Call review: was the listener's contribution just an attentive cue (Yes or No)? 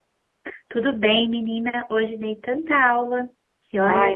No